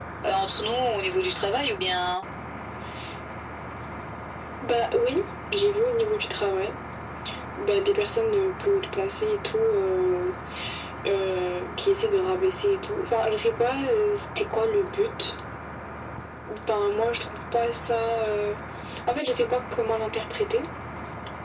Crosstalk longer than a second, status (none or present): none